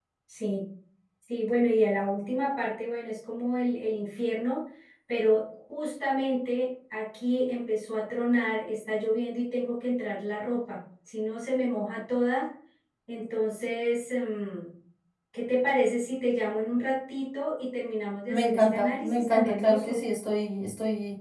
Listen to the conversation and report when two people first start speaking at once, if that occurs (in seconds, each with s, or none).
18.3 s